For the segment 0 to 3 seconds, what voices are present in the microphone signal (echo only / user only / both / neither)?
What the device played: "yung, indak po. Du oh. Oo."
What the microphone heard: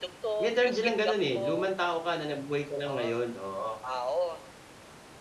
both